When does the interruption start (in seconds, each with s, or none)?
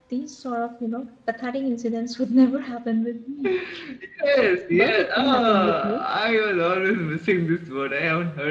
4.7 s